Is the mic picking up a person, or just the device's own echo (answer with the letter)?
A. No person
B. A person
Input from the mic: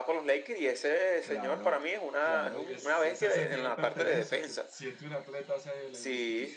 B